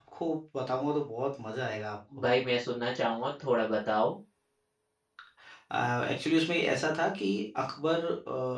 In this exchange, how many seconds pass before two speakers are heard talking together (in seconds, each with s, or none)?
none